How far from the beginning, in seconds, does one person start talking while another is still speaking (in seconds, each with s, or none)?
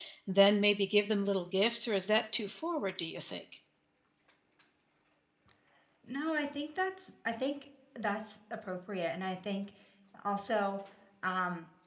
none